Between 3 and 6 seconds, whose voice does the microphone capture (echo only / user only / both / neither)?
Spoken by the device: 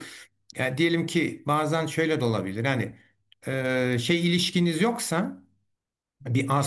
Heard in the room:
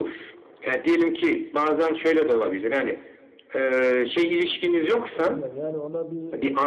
both